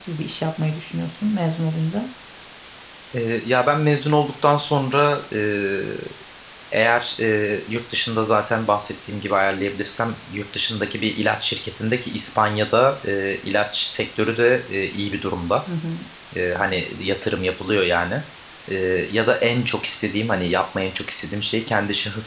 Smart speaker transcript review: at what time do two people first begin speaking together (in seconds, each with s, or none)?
none